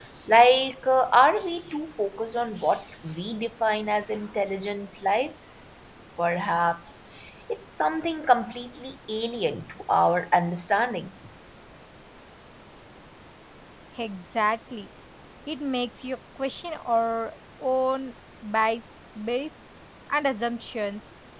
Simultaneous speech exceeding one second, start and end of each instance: none

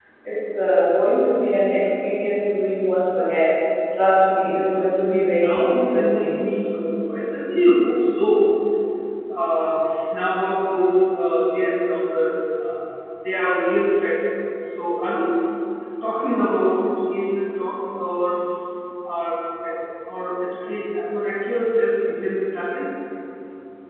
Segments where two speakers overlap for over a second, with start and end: 5.1-6.4

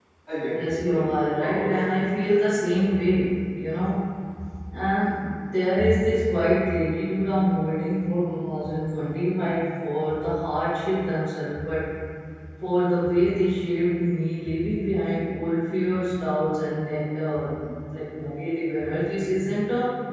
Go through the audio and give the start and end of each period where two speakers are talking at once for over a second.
0.5-1.7

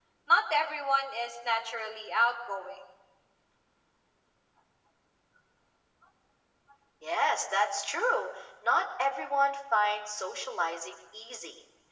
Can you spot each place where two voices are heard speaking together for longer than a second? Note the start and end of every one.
none

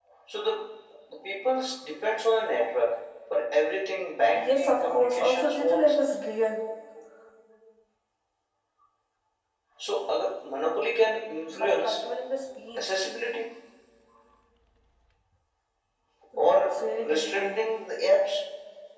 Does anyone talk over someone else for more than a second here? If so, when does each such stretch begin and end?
4.3-6.0, 16.4-17.6

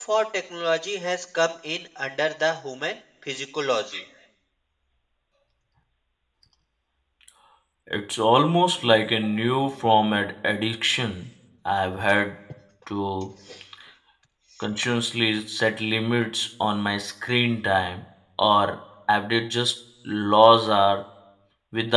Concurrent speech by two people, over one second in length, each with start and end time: none

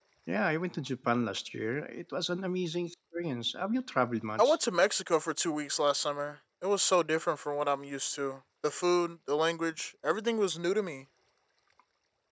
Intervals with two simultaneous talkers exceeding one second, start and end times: none

